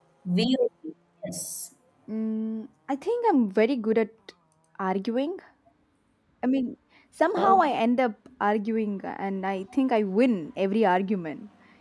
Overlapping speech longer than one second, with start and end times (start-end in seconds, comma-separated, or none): none